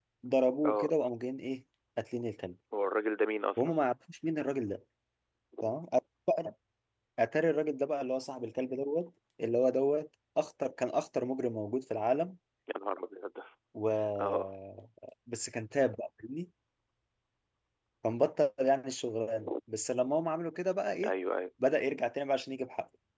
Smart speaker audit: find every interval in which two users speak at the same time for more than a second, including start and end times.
none

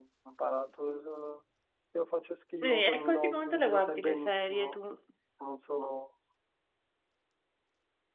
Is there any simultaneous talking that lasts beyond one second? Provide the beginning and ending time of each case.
2.6-4.8

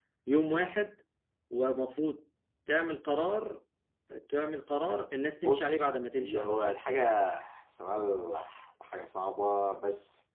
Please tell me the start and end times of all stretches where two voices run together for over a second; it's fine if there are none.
5.4-6.8

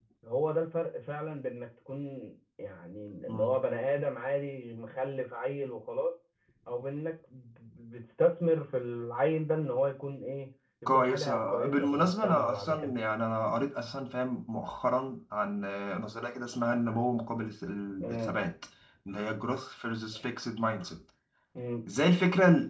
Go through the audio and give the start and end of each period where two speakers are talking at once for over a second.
10.9-12.9

